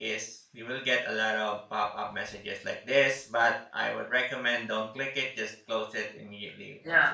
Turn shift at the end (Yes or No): Yes